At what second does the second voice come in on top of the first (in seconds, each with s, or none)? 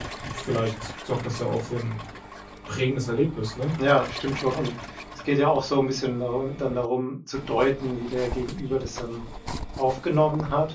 none